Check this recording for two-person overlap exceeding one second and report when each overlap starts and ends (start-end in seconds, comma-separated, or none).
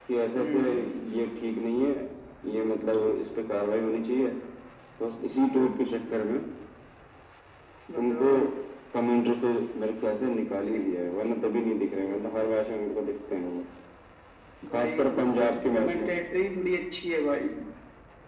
14.7-16.1